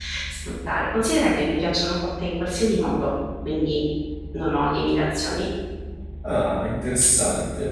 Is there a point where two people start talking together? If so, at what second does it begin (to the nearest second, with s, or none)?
none